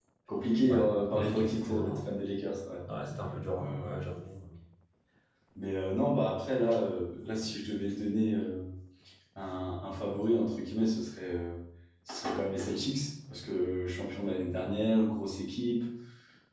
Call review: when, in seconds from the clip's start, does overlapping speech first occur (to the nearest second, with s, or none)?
1 s